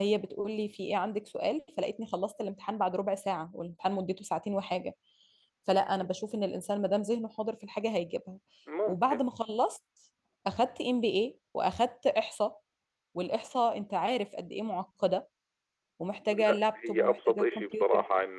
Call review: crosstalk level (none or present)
present